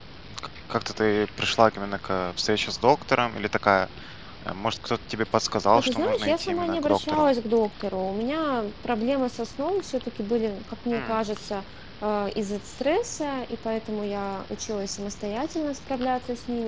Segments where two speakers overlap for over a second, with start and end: 5.8-7.3

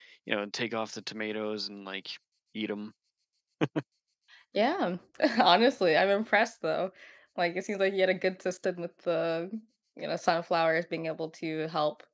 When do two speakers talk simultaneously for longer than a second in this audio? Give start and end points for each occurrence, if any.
none

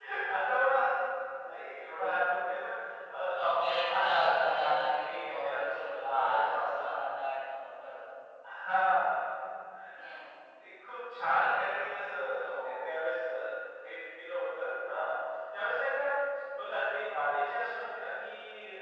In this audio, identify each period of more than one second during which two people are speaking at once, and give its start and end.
3.6-6.8

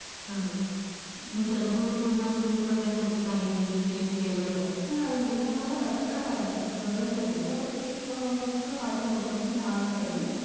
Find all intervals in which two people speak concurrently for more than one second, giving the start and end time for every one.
none

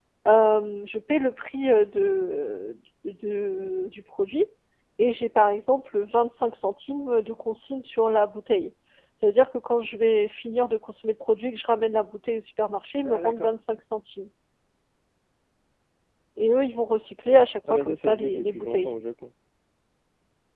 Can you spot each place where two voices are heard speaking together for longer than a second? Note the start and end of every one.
17.7-18.9

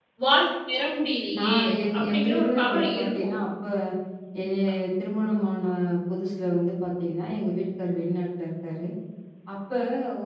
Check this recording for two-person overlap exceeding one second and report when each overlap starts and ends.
2.0-3.3

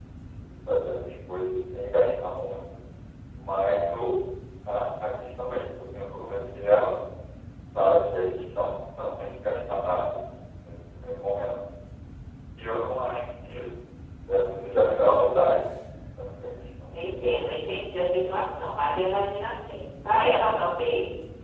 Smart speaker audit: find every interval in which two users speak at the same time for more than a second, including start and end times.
none

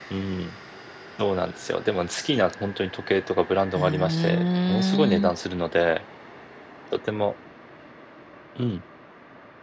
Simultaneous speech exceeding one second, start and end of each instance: 3.8-5.3

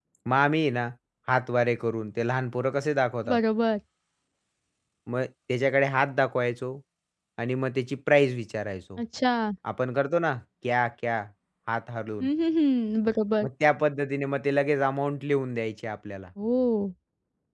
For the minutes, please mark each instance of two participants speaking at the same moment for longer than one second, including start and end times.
none

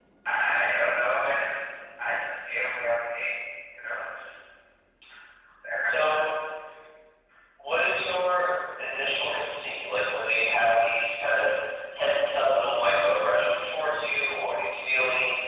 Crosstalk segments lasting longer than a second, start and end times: none

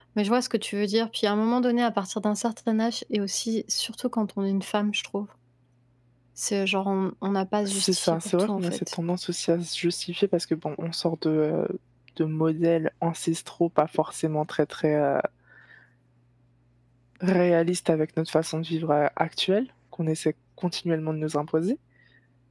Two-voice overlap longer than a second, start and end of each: 7.7-8.9

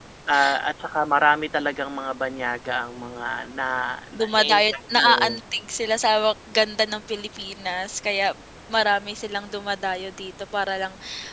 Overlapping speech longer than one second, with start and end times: 4.2-5.4

